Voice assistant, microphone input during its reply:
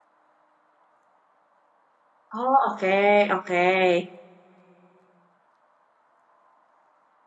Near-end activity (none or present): present